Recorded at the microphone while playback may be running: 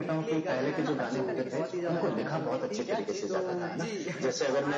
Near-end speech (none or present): present